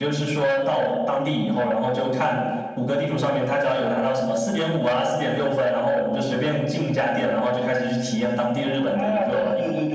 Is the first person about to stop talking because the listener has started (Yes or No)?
Yes